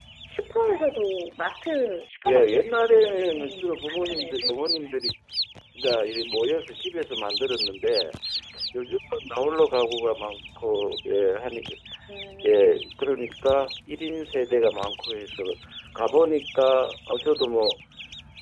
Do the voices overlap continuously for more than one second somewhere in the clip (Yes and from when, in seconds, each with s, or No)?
Yes, from 2.2 s